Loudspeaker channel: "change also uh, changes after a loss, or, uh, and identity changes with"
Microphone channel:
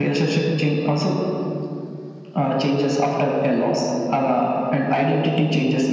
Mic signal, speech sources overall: echo only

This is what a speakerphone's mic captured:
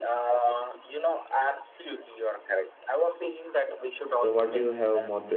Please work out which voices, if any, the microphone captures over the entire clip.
both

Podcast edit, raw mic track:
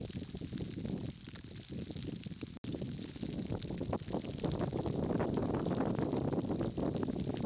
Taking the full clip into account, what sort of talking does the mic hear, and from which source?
neither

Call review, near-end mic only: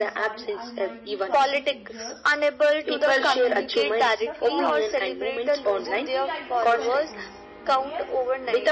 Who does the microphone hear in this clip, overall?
both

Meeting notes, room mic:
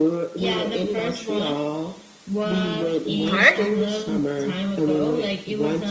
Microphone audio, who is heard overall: both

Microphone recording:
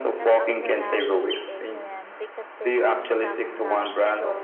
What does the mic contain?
both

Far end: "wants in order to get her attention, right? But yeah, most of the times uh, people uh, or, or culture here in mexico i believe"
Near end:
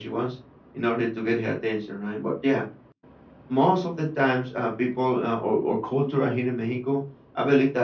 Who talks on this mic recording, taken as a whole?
echo only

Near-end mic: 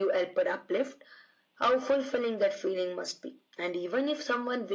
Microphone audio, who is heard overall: echo only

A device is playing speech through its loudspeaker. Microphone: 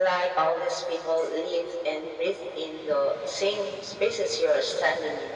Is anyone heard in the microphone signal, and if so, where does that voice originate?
echo only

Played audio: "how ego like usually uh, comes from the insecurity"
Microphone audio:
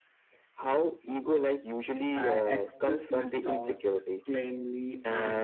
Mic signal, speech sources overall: both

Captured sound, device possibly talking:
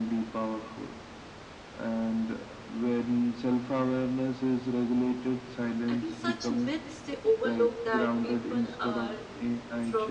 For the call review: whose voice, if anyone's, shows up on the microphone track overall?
both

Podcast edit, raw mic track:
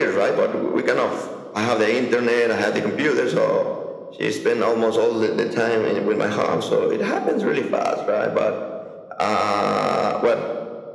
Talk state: echo only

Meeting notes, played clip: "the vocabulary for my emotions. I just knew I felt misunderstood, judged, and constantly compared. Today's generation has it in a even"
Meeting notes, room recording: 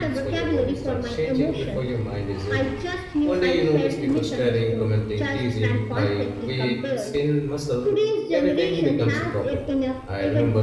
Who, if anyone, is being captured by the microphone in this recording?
both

